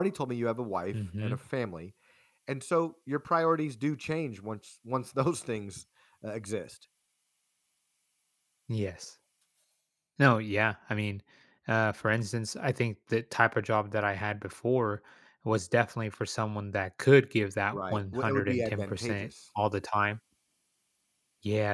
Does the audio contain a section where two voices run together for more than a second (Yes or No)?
Yes